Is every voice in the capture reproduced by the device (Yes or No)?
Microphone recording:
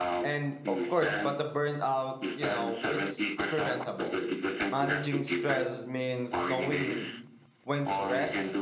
No